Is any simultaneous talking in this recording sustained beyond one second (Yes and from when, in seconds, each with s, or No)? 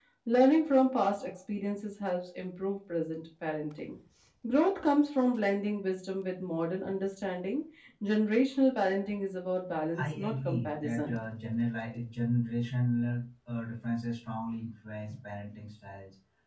Yes, from 9.9 s